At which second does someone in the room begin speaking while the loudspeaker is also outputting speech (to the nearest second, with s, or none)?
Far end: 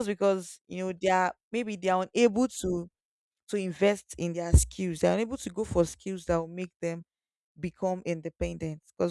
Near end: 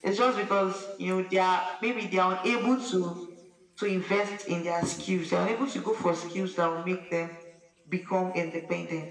none